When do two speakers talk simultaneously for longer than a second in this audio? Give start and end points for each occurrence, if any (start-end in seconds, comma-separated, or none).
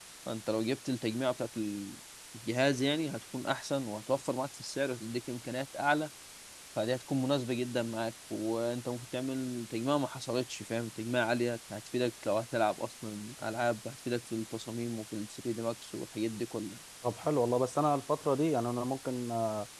none